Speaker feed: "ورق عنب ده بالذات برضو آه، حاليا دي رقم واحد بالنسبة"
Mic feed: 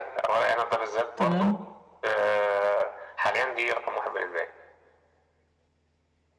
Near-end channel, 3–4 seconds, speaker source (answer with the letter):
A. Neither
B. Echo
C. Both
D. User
B